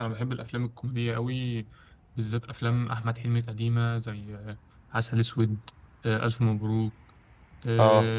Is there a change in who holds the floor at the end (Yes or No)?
No